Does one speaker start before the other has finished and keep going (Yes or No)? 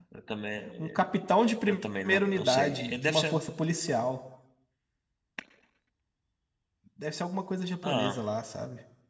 Yes